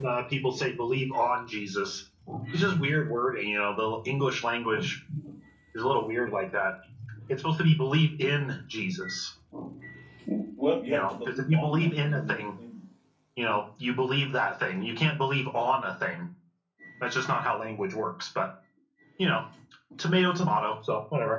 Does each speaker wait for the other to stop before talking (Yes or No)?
No